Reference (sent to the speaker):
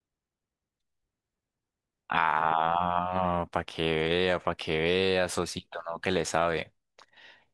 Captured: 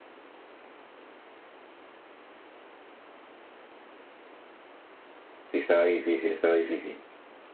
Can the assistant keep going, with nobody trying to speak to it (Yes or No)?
No